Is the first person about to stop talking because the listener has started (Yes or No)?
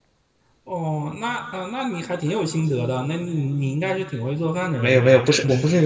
Yes